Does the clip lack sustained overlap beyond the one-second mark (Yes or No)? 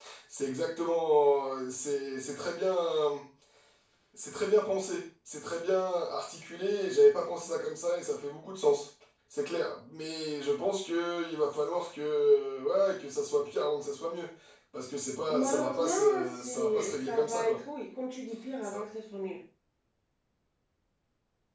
No